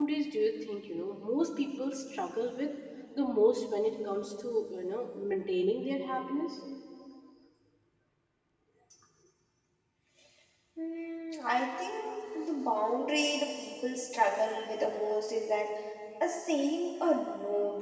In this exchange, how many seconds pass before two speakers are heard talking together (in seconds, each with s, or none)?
none